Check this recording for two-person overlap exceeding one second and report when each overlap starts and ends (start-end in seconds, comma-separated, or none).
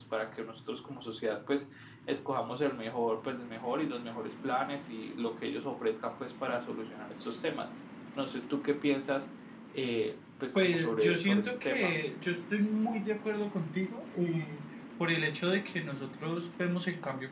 10.6-11.9